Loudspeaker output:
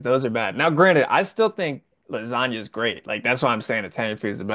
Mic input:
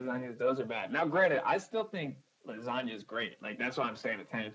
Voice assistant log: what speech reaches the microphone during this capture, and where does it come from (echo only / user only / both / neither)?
echo only